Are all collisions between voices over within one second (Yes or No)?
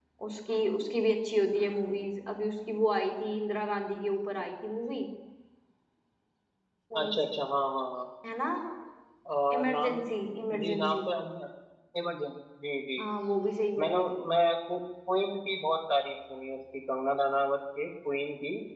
Yes